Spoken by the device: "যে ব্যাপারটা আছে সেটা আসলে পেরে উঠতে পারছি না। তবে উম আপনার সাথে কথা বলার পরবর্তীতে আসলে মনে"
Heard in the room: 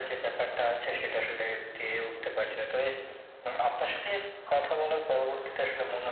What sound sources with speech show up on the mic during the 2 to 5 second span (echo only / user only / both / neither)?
echo only